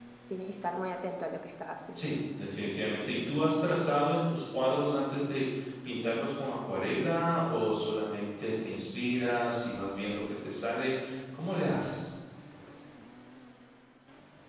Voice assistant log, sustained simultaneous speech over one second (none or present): none